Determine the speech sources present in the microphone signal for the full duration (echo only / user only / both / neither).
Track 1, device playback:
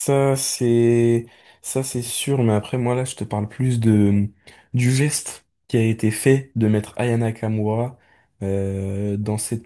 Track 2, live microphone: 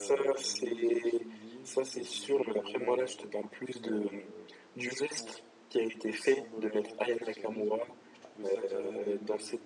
both